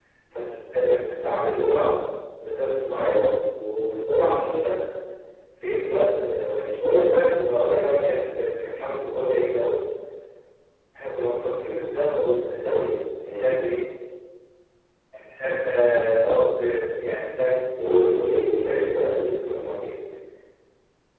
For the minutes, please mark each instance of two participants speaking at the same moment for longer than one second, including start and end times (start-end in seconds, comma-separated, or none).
17.8-19.4